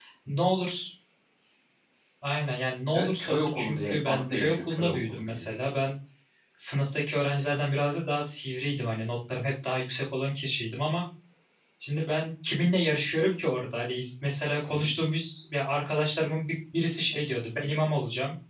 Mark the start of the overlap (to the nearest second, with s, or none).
3 s